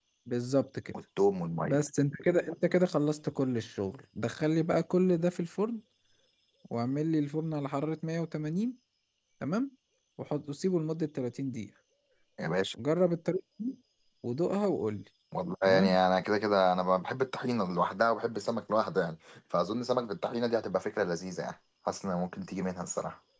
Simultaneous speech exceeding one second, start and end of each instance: none

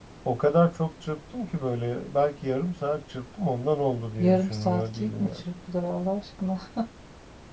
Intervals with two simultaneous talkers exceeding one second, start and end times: 4.2-5.4

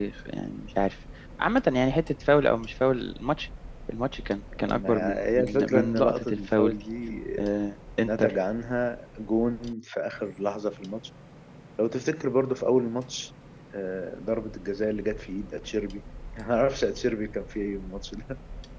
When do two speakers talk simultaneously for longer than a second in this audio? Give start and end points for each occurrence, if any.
4.7-6.8

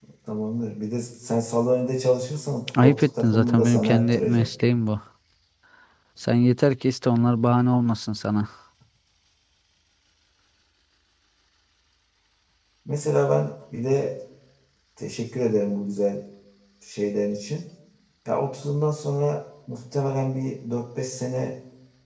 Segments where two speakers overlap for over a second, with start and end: 2.8-4.5

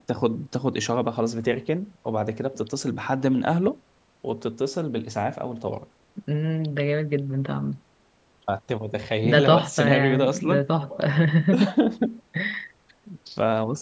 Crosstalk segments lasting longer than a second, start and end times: 9.2-10.6

